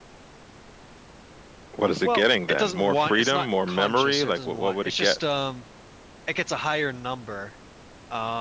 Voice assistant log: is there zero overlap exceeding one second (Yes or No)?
No